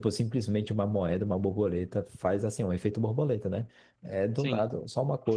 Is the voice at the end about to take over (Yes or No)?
No